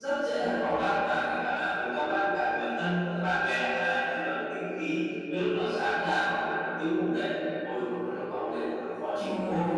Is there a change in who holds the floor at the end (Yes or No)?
Yes